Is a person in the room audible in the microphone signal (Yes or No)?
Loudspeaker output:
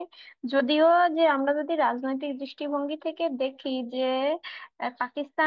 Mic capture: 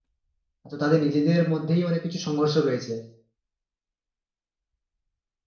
Yes